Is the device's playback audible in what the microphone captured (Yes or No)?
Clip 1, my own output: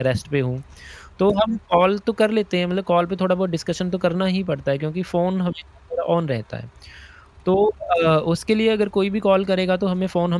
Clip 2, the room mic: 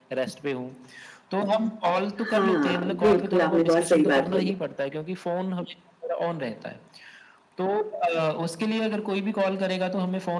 Yes